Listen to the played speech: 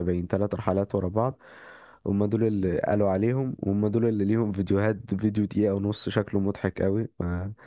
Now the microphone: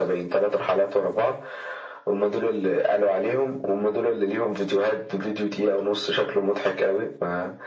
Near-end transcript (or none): none